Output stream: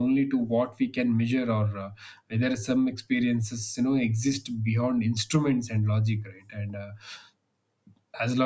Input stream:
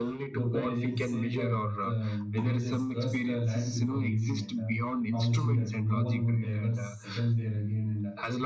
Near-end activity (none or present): present